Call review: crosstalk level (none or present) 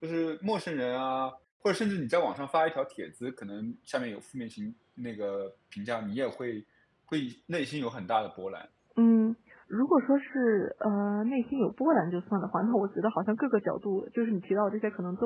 none